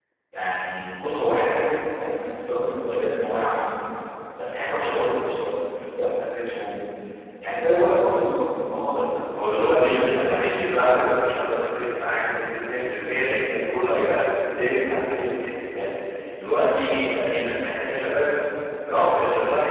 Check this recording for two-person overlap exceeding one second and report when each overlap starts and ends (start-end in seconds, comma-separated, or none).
9.6-11.4